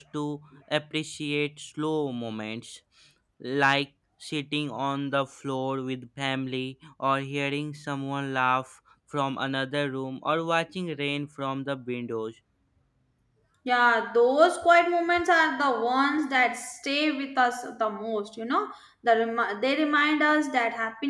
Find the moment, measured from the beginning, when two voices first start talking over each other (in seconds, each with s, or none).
none